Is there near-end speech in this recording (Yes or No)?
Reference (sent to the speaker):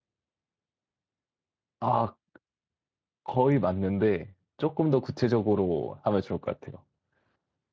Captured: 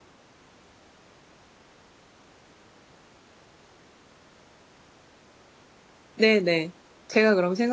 Yes